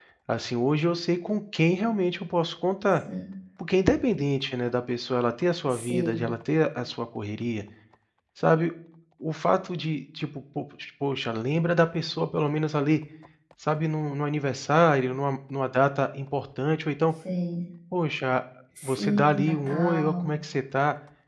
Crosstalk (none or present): present